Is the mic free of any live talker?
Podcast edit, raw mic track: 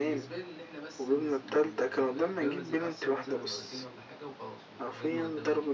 No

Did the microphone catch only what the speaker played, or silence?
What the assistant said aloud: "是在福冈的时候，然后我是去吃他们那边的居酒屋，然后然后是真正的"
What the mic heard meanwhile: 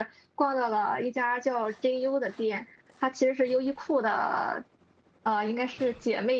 No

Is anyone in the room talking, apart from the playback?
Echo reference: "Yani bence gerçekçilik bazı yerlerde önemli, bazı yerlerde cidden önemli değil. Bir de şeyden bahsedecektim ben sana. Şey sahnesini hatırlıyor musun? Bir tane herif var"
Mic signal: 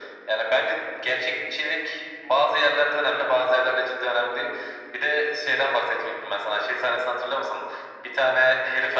No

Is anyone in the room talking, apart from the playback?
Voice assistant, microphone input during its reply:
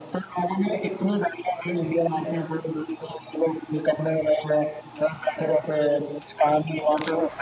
No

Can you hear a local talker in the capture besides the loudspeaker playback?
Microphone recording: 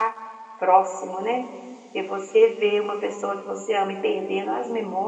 Yes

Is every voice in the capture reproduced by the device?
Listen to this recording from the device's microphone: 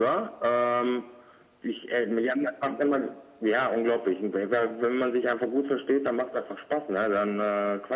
Yes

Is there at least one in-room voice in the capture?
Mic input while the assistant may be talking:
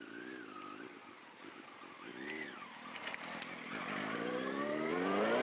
No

